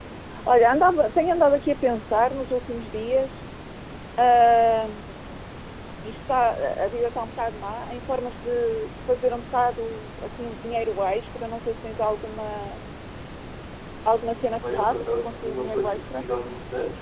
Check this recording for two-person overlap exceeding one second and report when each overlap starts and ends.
14.8-16.2

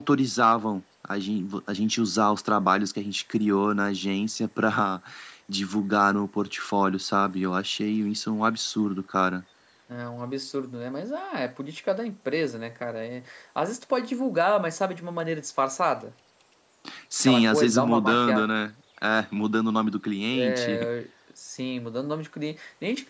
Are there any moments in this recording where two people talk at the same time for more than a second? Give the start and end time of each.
17.3-18.5

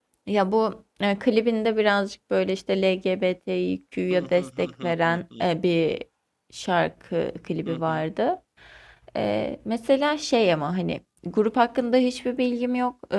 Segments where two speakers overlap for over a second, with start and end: 4.1-5.5

